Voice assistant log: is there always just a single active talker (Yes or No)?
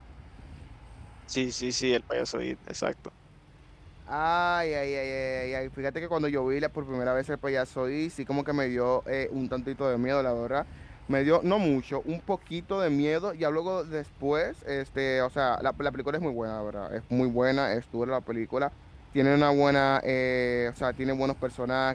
Yes